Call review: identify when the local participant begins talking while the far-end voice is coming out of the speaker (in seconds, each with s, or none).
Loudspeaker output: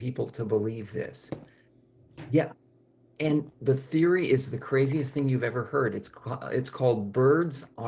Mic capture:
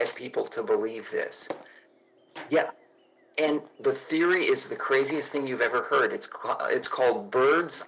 none